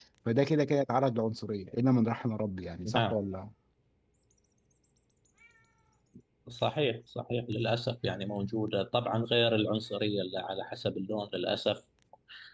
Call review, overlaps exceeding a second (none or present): none